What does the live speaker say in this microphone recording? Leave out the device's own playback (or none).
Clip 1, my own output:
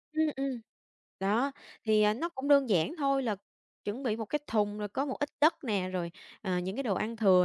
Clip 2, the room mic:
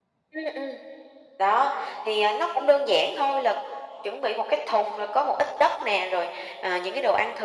none